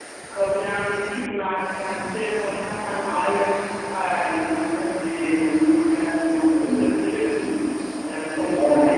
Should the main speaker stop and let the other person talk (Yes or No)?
No